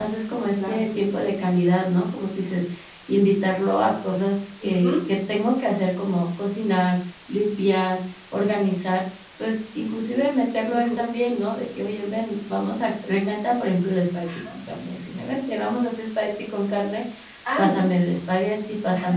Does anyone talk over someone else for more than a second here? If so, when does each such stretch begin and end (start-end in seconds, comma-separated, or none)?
none